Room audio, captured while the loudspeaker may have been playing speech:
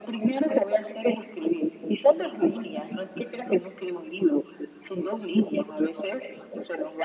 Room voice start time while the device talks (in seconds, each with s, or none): none